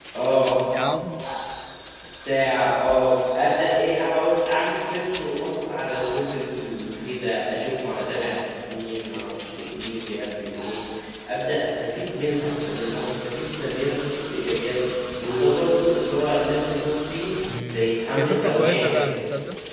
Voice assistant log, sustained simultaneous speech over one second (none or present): present